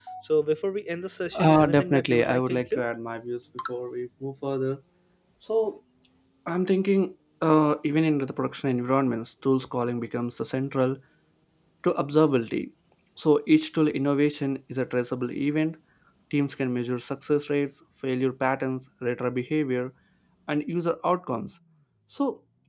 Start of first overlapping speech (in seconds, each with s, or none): 1.2 s